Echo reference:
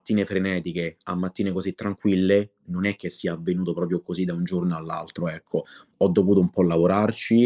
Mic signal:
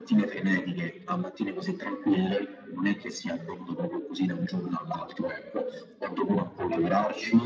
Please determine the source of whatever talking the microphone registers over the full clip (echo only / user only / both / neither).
echo only